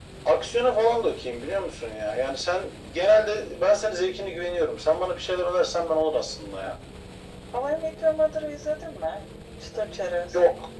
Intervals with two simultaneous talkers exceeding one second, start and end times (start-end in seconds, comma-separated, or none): none